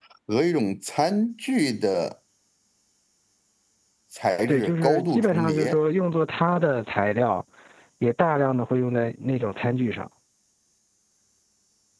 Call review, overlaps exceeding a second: present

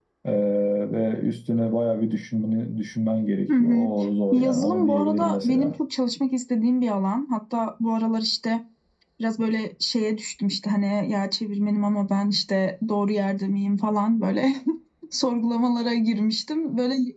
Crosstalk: present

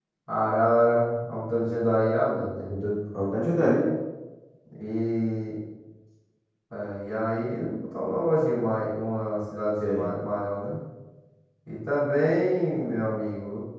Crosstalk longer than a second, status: none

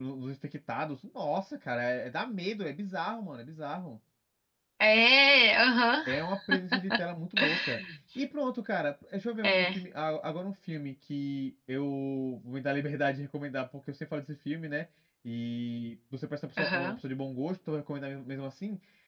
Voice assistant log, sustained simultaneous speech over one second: none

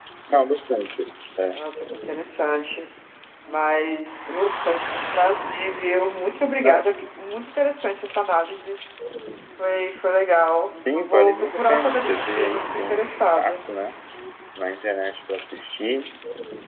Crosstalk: present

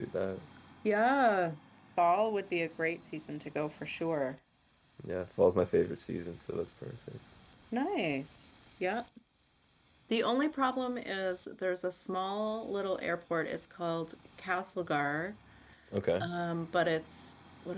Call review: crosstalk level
none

